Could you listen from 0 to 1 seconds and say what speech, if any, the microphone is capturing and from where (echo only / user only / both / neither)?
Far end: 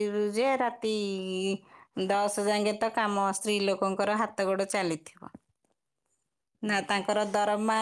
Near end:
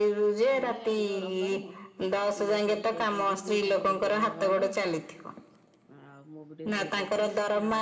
both